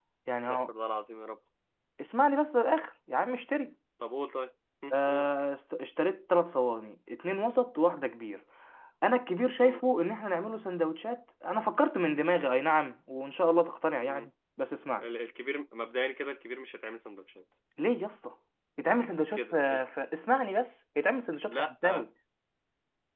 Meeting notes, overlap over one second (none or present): none